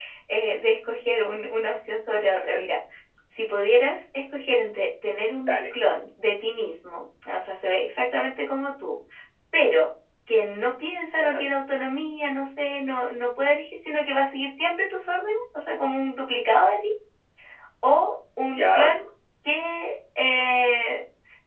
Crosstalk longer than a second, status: none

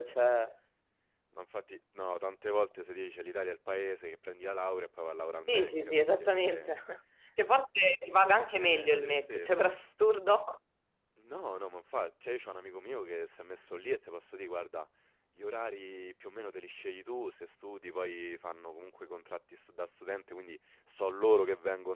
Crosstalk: present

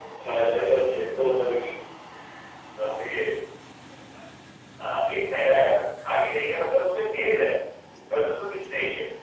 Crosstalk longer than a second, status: none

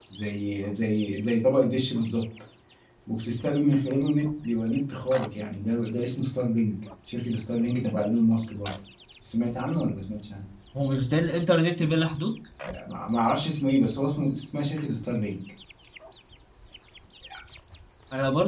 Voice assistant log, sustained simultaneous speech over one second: none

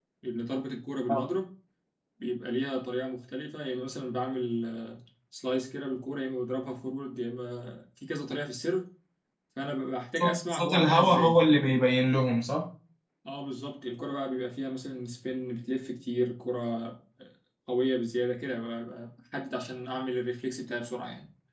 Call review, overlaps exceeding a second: present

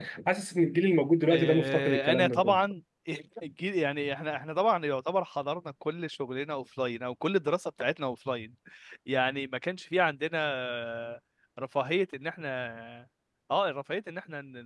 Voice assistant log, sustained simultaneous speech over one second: present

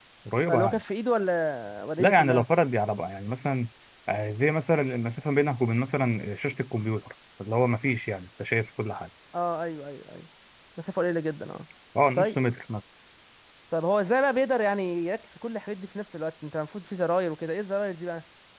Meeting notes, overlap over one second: none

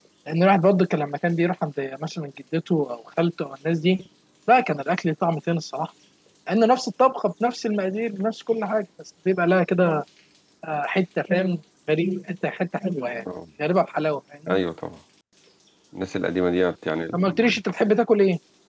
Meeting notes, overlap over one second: none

